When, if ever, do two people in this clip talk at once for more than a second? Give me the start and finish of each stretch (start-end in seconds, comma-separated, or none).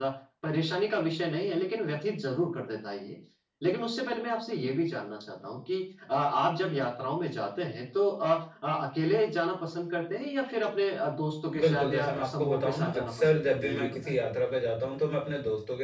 11.6-14.2